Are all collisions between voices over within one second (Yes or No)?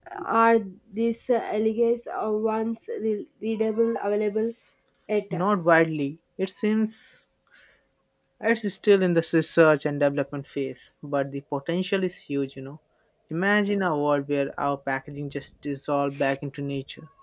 Yes